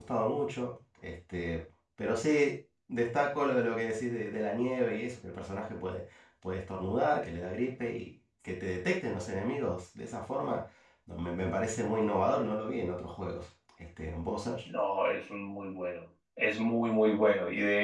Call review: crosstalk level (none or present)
none